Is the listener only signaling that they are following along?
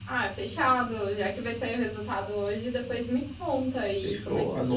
No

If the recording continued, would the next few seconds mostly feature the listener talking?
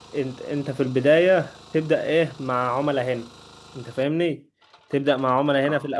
No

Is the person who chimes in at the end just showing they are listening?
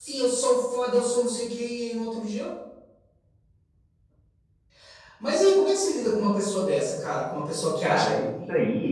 No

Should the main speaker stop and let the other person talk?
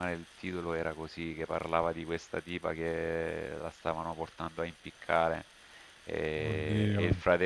No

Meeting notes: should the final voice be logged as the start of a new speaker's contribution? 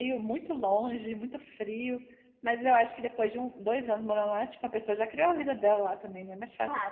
Yes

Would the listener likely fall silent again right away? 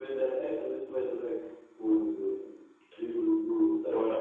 No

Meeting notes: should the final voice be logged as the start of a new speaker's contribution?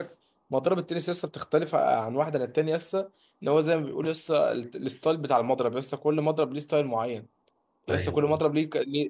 No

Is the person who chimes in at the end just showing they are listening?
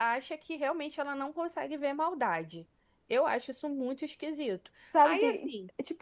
No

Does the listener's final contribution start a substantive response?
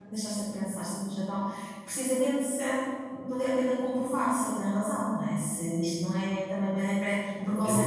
Yes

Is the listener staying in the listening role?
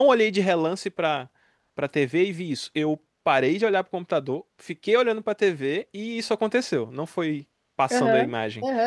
No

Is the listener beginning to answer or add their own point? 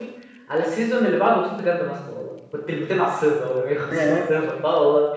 No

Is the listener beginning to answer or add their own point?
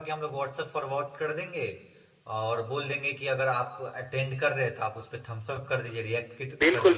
Yes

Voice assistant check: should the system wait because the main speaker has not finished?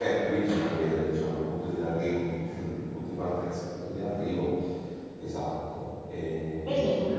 No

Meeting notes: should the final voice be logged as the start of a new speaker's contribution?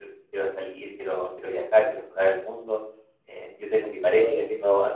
No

